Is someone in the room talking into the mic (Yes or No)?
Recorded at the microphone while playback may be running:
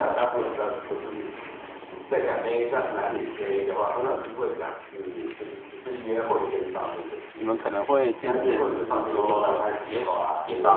Yes